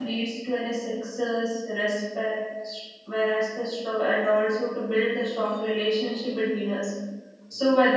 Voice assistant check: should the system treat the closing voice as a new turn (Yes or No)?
No